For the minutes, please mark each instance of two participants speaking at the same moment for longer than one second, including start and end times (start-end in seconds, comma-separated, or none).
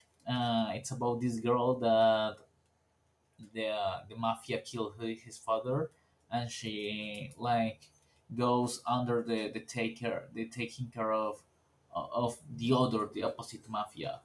none